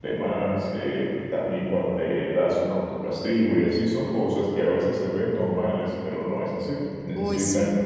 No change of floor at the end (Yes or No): Yes